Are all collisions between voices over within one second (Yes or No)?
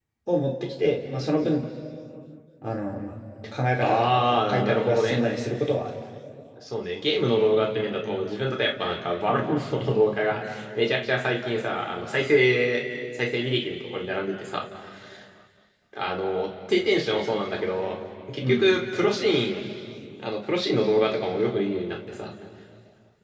No